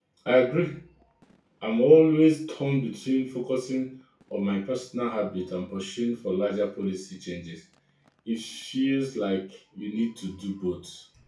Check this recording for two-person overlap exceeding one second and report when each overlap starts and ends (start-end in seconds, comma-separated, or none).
none